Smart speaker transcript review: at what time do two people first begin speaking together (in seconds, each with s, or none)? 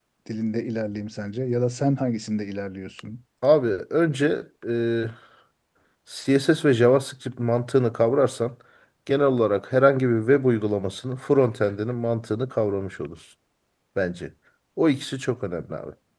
none